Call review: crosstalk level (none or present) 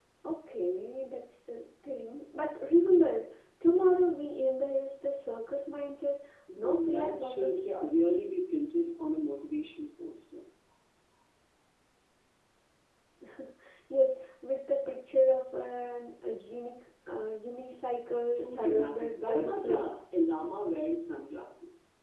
present